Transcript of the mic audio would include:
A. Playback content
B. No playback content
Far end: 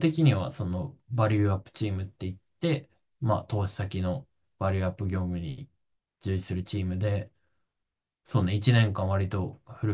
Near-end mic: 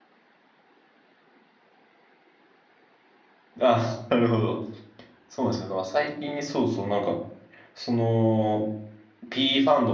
B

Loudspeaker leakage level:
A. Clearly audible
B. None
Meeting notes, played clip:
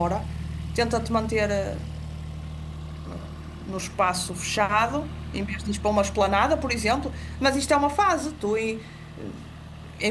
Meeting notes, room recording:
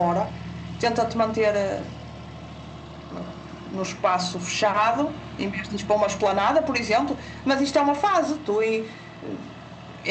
A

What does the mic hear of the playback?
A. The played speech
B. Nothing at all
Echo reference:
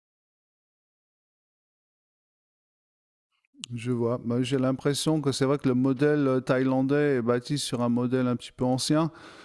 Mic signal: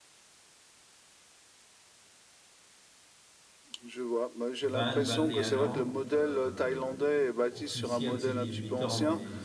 A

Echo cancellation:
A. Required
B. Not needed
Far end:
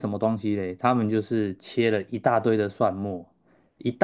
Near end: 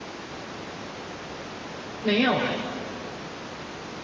B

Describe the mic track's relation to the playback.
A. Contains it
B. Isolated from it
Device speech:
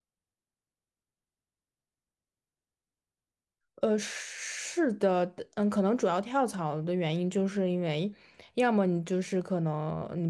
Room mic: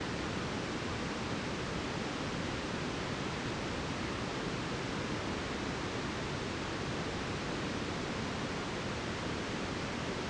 B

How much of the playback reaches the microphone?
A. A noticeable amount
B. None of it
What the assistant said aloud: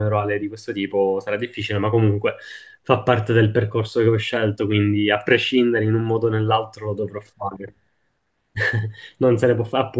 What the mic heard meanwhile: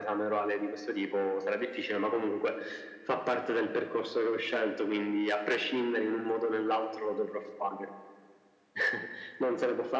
A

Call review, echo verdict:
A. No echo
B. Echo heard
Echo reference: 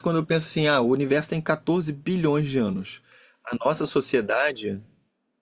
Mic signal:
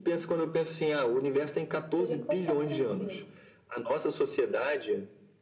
B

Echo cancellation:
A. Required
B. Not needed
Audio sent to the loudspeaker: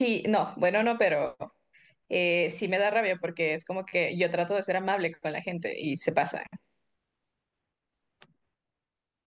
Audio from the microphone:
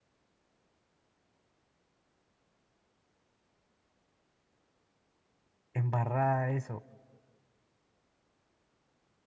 B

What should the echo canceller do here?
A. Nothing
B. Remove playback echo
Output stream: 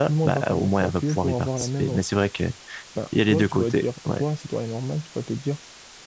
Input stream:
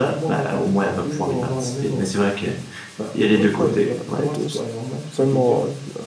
B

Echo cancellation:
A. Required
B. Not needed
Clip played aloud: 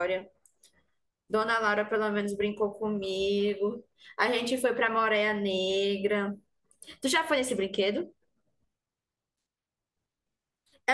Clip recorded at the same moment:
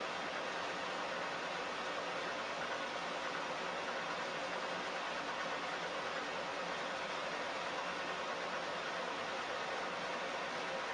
B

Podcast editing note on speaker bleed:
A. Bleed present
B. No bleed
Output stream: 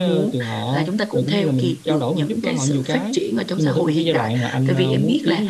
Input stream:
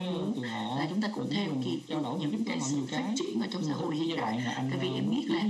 A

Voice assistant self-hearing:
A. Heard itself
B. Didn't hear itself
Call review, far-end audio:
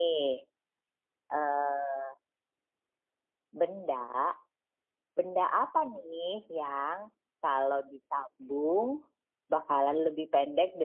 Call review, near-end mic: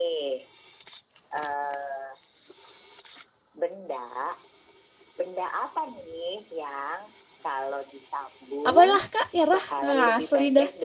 A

